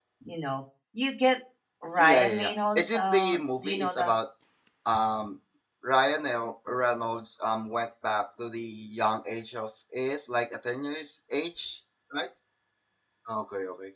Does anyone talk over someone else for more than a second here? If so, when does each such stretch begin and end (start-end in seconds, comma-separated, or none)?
2.0-4.1